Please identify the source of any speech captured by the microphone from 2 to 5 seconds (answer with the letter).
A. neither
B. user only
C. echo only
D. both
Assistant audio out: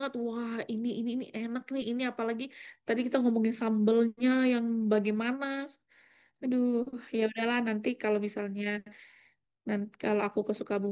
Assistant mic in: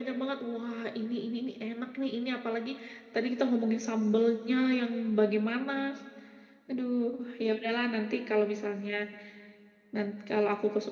C